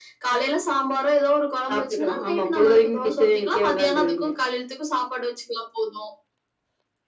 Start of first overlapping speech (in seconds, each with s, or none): 1.7 s